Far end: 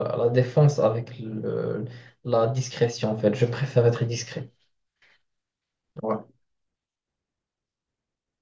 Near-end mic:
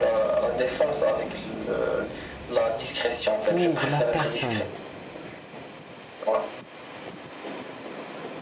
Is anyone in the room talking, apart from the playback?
Yes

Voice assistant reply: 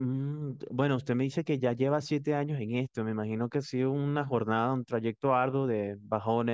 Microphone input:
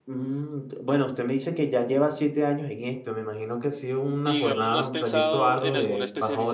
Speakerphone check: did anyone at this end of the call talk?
Yes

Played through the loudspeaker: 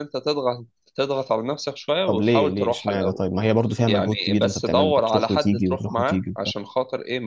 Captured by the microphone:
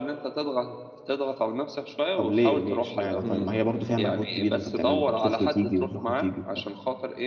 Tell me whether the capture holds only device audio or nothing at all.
No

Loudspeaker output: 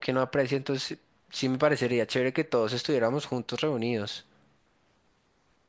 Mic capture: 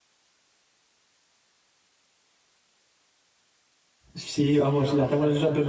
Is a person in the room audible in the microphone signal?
Yes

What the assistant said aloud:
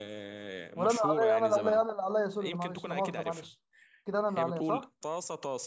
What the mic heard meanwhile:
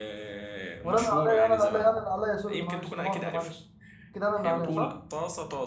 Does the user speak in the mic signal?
No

